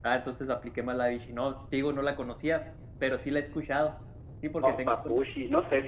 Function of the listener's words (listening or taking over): taking over